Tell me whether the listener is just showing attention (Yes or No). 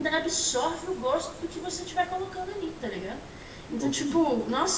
Yes